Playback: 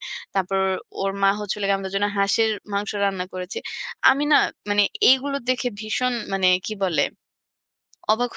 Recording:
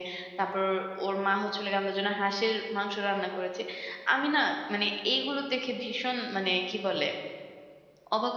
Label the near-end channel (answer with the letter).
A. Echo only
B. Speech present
A